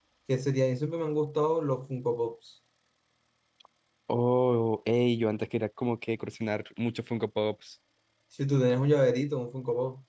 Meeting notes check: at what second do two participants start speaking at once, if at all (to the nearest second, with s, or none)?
none